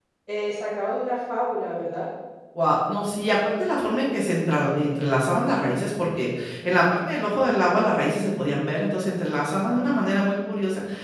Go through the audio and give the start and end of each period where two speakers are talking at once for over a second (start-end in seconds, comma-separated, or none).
none